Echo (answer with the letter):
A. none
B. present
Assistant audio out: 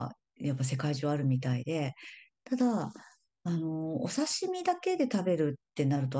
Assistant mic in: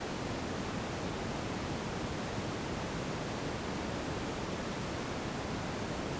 A